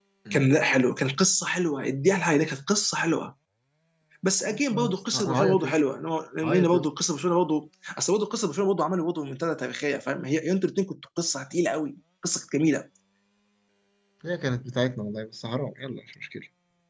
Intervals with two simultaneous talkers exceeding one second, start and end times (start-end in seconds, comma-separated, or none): 4.5-5.8